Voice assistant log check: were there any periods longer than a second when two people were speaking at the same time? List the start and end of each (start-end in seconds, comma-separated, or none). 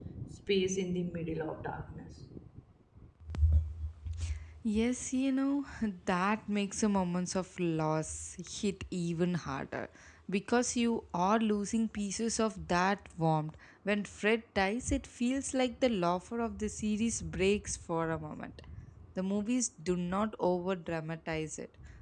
none